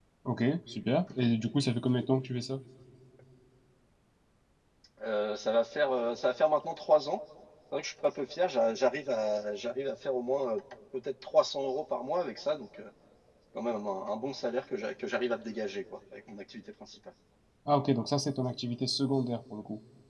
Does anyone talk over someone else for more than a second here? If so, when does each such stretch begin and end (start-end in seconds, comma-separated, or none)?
none